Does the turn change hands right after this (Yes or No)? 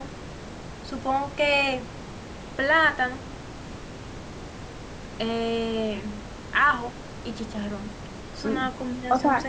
Yes